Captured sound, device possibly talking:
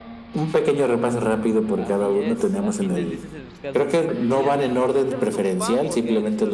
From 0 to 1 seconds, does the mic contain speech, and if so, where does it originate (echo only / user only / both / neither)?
echo only